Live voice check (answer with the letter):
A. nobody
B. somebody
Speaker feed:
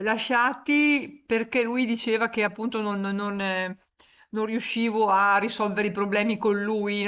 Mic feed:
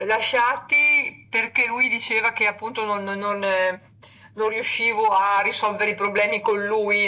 A